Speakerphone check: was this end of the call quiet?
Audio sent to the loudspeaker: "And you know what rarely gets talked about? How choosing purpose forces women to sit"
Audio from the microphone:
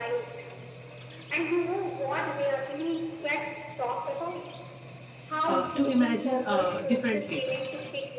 No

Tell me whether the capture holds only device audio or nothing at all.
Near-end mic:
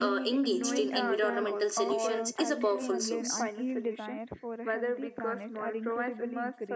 No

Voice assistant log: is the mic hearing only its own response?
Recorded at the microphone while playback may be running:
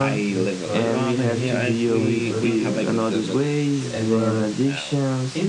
No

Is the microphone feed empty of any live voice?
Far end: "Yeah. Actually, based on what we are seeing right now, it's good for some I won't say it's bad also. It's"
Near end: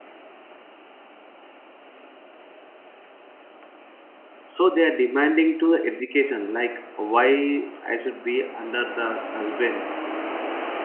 No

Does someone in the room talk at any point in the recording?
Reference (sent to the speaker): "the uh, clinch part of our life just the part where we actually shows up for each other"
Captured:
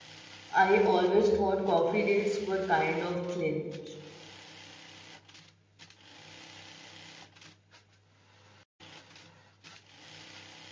Yes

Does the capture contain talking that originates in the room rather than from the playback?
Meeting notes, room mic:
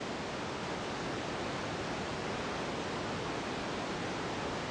No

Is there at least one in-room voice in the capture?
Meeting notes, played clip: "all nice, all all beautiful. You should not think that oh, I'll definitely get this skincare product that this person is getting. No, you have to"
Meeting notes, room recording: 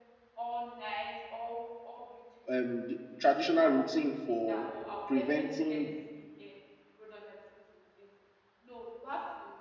Yes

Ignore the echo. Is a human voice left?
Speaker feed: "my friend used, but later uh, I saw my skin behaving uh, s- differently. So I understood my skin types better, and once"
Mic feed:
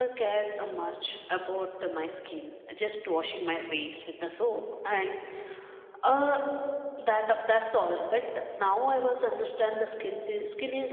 Yes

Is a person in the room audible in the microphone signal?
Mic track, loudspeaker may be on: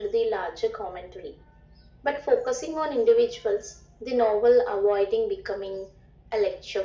No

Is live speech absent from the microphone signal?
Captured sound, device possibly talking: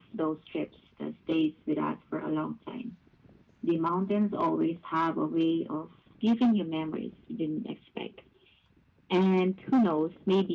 Yes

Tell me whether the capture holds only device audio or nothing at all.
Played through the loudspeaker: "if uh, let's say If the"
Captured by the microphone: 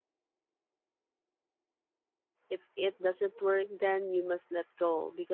No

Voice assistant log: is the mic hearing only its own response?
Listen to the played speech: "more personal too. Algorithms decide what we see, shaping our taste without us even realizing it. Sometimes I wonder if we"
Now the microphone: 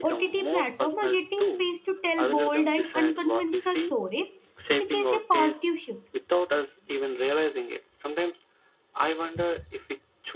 No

